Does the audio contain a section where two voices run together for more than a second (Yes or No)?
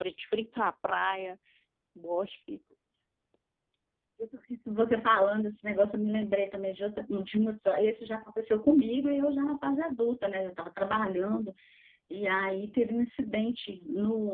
No